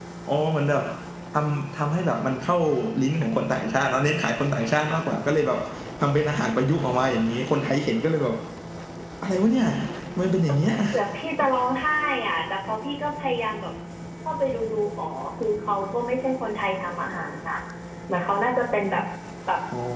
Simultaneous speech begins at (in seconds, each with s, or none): none